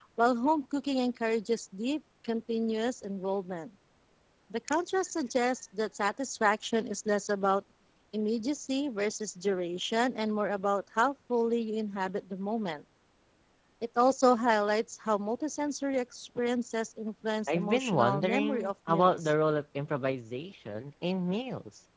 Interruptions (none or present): present